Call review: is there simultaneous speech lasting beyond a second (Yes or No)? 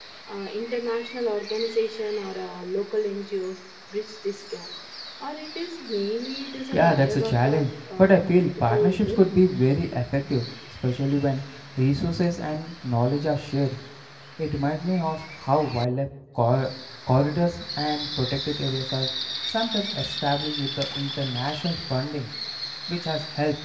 Yes